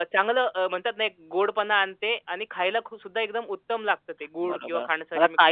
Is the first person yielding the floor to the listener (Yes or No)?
Yes